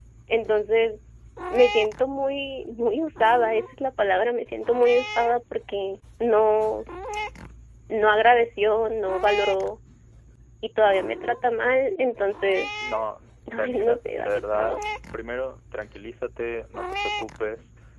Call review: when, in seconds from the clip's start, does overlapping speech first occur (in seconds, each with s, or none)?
13.5 s